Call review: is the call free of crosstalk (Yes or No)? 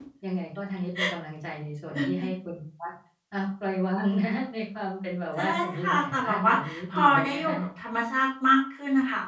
No